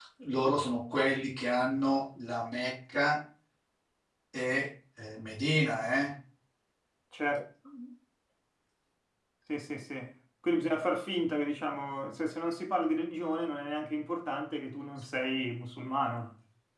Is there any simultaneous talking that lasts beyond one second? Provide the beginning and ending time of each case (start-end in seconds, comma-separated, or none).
none